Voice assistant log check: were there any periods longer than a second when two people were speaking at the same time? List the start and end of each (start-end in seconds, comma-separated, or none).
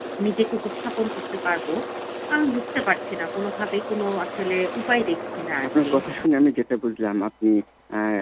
none